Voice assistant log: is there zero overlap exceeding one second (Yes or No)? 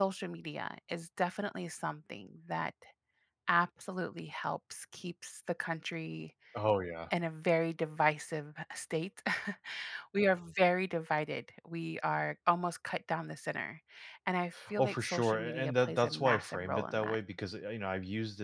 No